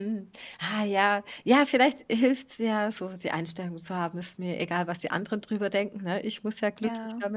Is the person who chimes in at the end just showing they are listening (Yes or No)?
Yes